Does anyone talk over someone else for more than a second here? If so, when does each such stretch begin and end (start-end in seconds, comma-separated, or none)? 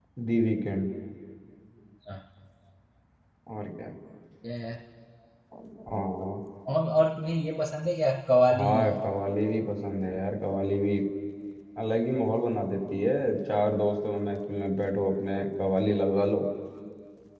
none